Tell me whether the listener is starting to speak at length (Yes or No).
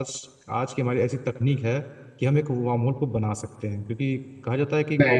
No